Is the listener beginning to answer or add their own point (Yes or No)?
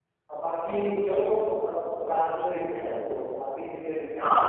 Yes